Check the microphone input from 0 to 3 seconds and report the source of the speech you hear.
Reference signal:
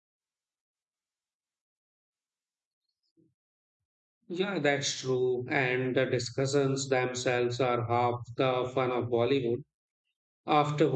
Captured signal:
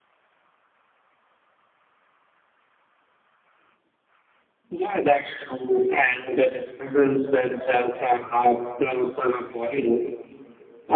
neither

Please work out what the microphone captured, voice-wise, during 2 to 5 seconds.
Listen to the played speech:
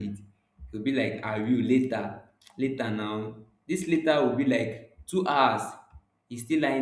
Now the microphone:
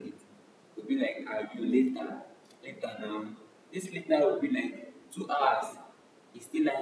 echo only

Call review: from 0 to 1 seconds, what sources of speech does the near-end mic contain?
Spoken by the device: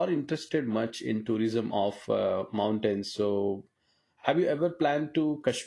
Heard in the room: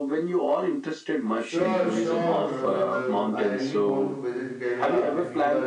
echo only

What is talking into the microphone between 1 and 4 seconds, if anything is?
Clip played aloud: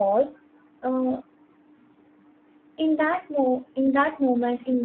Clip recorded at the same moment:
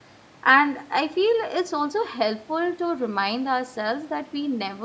user only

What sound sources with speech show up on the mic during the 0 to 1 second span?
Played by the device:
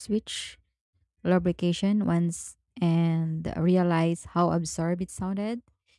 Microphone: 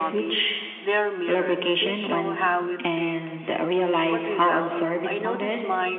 both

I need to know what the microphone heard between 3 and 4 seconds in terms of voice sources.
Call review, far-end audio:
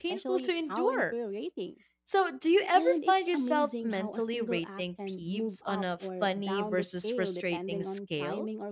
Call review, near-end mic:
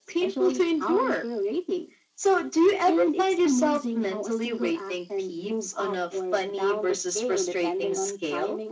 echo only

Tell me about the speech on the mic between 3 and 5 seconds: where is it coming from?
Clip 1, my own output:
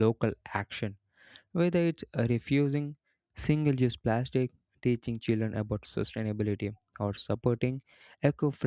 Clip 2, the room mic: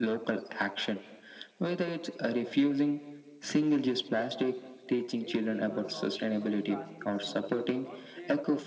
echo only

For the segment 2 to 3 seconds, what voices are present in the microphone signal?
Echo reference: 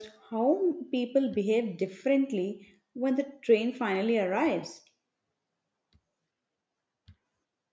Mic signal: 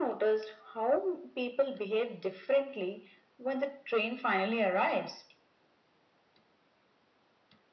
echo only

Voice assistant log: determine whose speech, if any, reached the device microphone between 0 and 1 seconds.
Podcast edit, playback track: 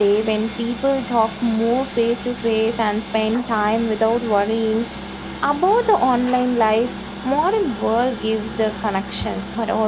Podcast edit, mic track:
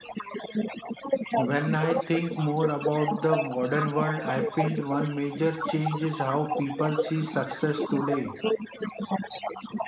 echo only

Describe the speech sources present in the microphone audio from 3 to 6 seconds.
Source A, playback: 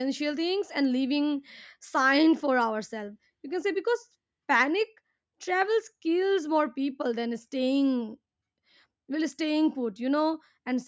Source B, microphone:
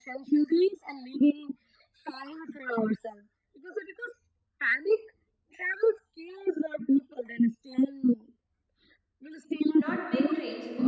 echo only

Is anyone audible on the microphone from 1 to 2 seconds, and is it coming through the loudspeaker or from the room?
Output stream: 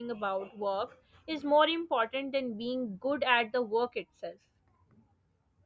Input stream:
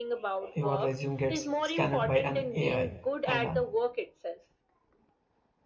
both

